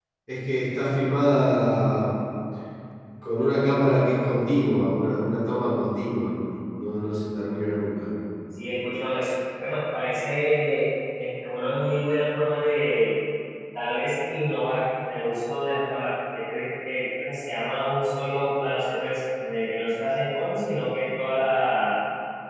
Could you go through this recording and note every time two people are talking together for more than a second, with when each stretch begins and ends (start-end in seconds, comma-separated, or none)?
none